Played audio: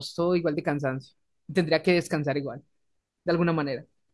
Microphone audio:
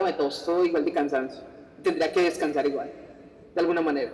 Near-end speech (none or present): none